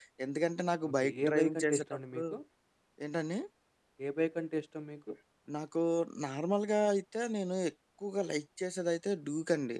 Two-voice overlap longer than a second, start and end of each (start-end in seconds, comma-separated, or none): 0.9-2.2